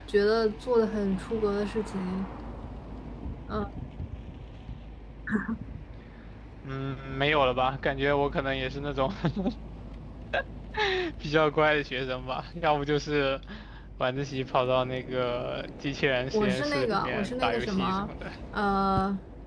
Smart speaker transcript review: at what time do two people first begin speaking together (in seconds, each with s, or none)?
16.3 s